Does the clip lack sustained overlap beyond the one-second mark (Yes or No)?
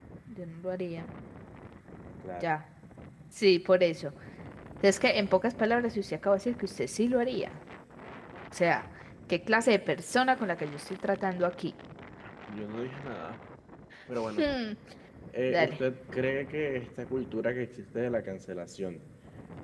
Yes